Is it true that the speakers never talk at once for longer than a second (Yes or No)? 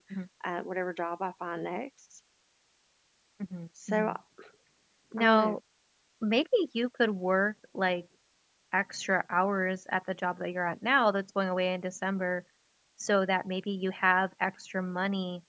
Yes